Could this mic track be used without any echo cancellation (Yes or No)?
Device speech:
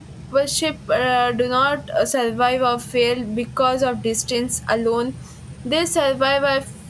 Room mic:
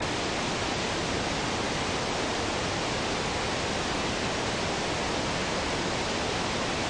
Yes